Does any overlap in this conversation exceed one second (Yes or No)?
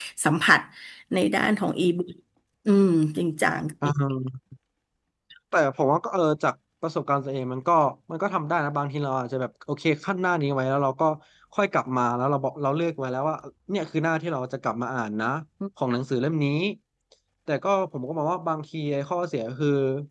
No